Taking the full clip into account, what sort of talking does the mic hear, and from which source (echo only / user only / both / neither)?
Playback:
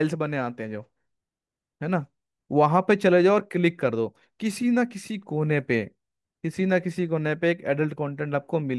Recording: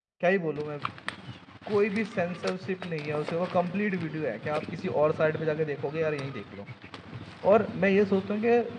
user only